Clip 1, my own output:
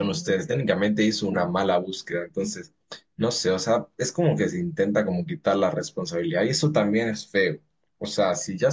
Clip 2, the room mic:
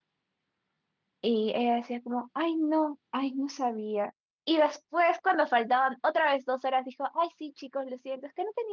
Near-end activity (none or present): present